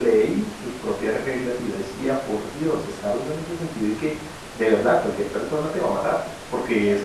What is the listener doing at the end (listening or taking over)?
taking over